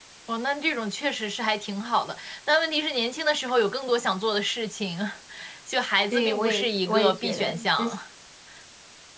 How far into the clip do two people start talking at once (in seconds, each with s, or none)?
6.1 s